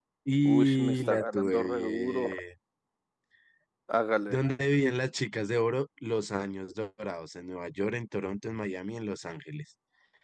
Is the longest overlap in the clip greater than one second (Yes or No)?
Yes